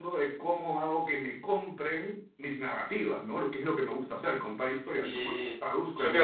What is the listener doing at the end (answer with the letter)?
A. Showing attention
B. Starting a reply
B